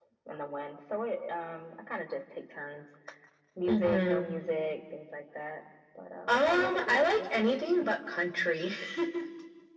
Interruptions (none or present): present